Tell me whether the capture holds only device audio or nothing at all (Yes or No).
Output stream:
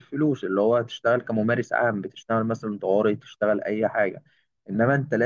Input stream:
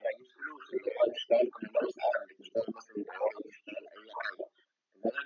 Yes